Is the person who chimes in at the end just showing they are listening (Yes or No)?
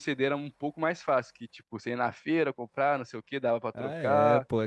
No